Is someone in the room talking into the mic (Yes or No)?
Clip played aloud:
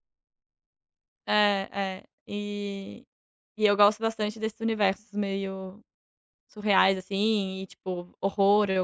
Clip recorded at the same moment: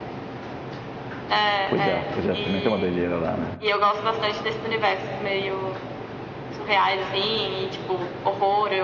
Yes